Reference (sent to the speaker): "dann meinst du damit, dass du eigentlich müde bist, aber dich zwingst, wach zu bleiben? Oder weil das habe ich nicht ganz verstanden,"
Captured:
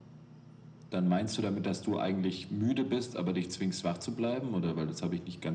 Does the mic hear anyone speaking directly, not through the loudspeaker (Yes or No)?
No